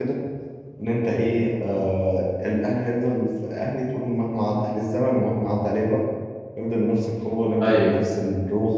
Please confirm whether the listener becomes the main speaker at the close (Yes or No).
No